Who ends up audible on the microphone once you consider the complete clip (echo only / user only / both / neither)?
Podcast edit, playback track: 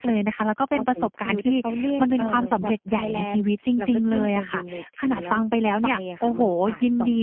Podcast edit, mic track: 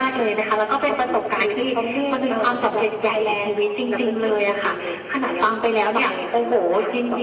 echo only